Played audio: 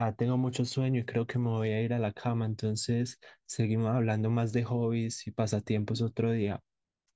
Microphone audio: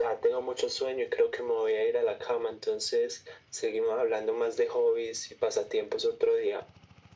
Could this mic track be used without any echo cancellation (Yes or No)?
No